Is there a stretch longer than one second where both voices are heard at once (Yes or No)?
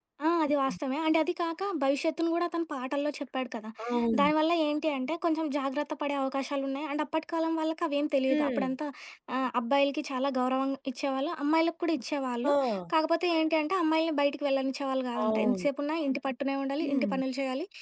No